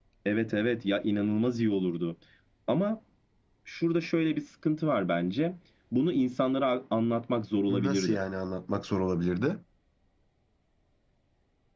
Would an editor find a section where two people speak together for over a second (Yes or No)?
No